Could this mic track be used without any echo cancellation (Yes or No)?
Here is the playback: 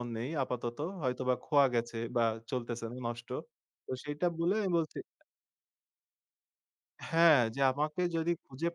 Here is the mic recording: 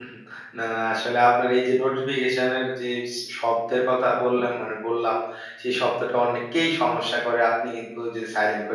Yes